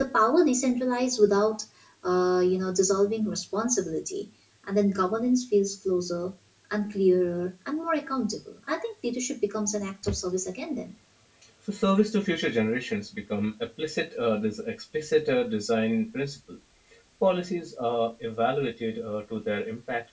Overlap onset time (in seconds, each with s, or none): none